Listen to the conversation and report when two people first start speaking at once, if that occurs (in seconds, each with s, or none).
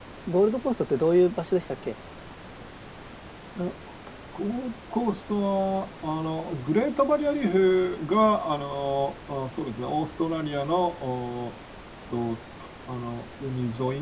none